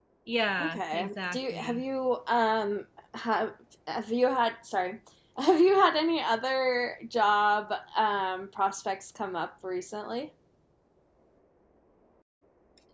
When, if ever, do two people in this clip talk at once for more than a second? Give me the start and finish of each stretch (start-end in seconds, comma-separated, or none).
0.6-1.8